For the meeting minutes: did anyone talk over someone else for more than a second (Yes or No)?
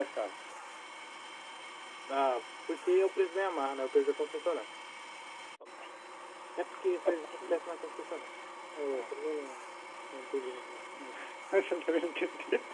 No